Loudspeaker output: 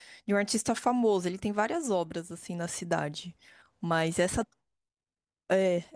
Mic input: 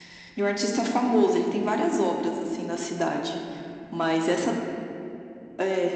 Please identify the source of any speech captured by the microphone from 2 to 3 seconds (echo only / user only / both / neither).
echo only